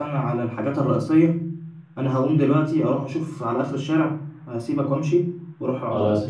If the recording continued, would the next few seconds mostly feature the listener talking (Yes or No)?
No